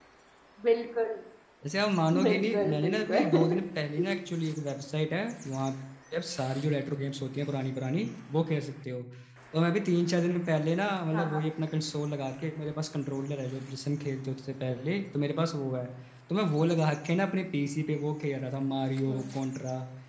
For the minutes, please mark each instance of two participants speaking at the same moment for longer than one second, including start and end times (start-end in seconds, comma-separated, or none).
2.2-3.4